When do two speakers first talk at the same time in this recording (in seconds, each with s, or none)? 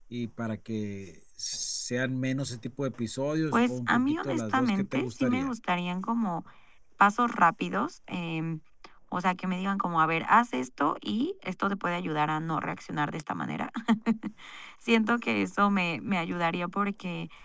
3.5 s